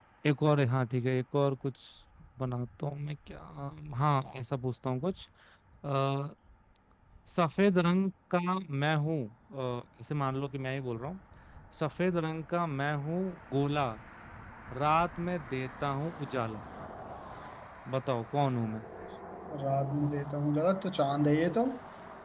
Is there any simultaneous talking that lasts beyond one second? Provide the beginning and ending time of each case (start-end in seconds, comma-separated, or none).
none